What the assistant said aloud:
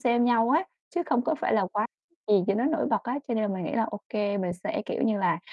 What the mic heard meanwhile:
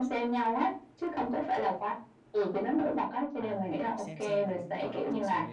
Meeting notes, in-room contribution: present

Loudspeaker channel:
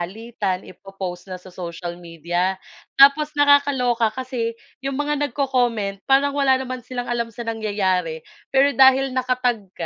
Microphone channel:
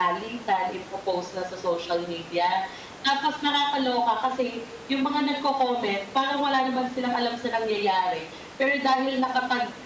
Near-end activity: none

